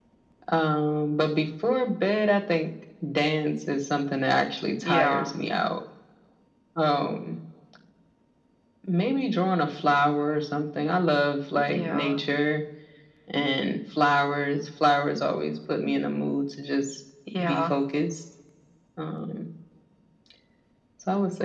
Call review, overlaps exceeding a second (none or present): none